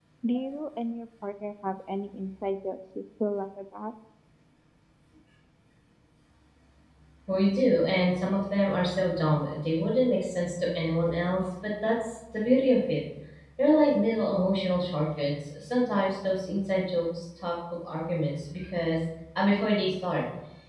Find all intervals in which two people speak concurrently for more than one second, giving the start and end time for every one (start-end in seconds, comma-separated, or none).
none